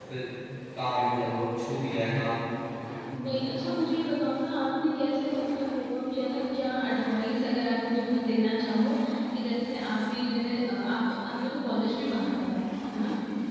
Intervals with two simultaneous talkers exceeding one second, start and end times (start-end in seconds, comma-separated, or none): none